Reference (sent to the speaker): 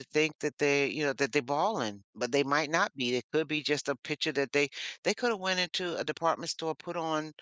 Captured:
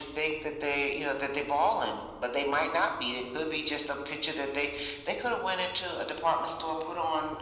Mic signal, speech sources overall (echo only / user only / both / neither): echo only